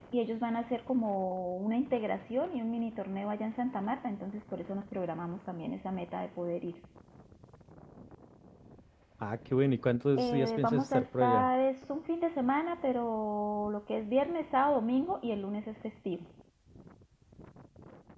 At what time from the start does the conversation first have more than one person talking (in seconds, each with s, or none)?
10.2 s